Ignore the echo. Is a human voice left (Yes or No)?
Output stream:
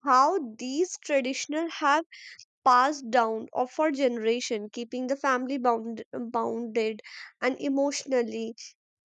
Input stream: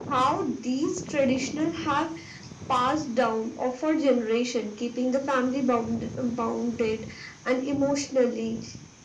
No